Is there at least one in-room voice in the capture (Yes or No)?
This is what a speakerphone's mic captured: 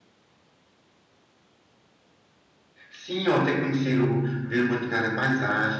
Yes